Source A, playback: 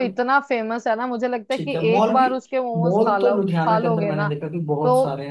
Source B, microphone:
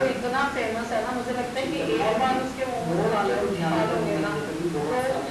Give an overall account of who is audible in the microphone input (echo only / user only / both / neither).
echo only